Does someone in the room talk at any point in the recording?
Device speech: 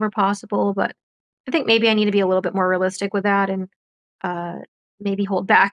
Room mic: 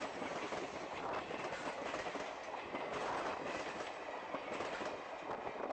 No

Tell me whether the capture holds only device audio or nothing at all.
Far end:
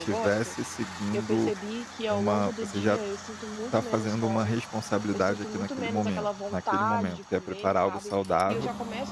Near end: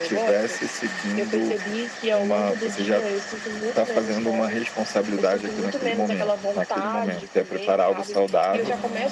Yes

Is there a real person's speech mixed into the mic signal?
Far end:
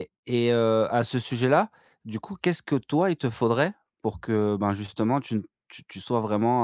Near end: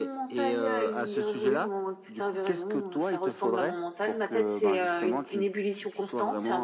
Yes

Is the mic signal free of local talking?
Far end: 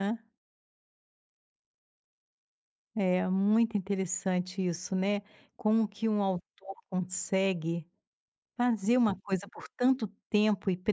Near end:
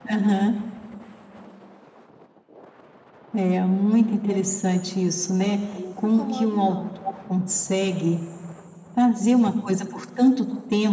No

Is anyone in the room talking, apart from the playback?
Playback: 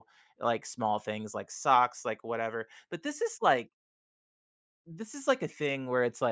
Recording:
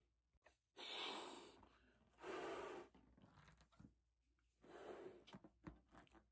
No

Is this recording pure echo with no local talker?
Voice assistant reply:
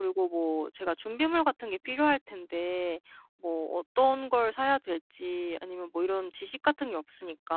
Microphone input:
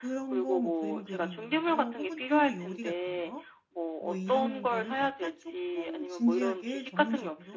No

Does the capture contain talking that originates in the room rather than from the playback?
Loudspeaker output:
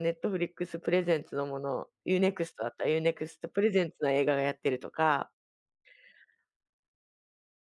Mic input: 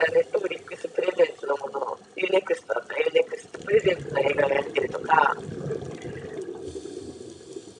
No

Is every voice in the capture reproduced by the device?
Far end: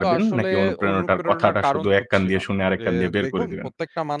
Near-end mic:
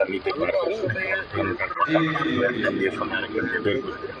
No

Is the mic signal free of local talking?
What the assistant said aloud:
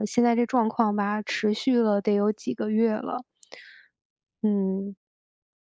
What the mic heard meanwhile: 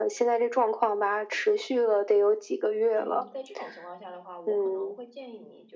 No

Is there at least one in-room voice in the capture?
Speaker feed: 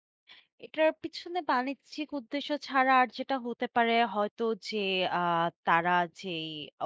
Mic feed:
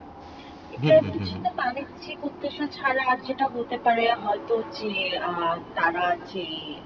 Yes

